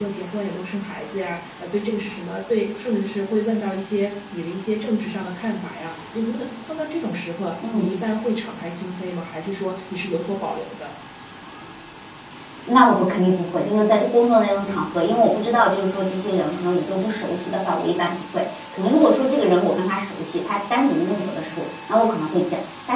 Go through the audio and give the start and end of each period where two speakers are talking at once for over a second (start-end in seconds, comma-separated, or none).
none